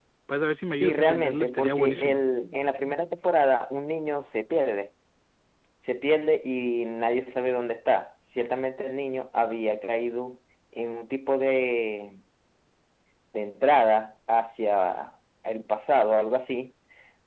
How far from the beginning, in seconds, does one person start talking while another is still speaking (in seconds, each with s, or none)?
0.8 s